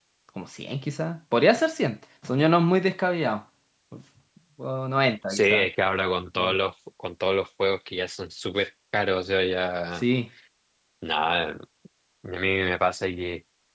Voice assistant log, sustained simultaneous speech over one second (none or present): none